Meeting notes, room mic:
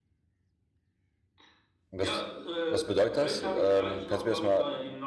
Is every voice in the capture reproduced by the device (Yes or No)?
No